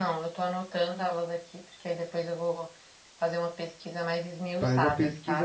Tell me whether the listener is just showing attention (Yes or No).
No